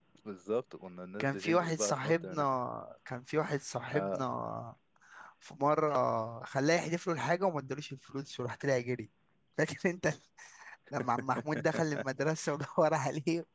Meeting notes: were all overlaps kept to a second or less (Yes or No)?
No